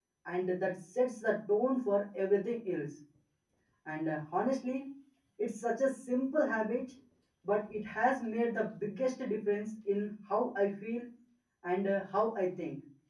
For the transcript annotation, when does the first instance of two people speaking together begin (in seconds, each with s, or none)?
none